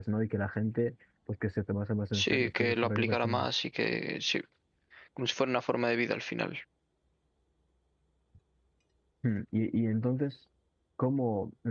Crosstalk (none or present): present